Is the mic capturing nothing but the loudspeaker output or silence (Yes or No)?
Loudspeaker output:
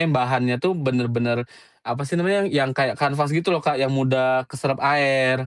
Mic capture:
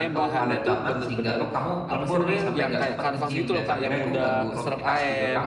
No